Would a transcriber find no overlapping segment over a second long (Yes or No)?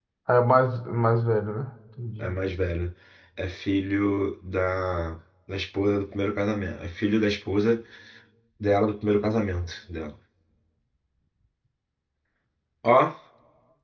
Yes